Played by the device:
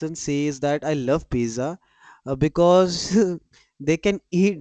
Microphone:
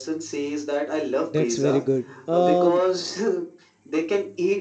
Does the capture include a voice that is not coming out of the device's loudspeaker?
Yes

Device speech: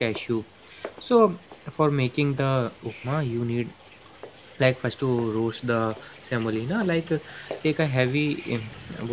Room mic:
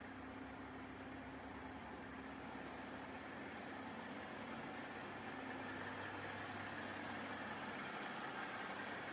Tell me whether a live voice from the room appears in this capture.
No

